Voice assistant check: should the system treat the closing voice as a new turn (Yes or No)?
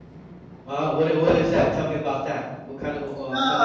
Yes